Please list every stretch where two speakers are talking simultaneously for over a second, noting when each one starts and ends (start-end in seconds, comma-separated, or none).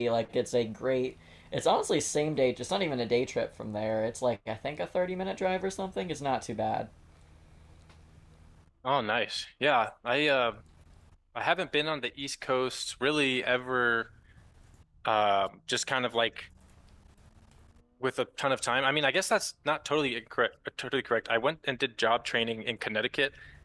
none